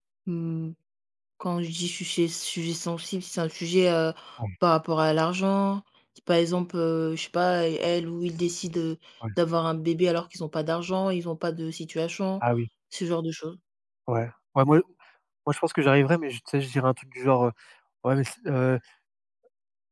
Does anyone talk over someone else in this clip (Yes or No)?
No